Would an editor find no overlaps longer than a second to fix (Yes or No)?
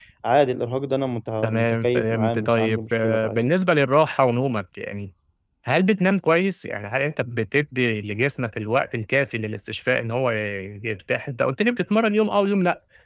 No